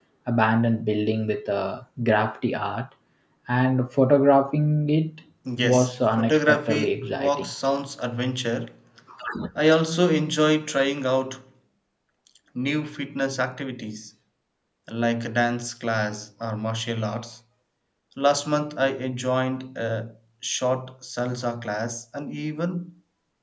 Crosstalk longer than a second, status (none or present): present